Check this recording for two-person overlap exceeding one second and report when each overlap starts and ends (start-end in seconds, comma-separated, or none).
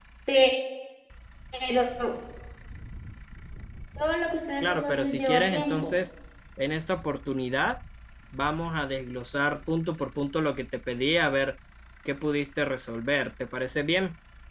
4.6-5.9